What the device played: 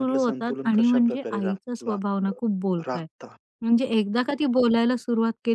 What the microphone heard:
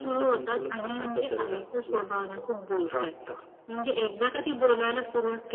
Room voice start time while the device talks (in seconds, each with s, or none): none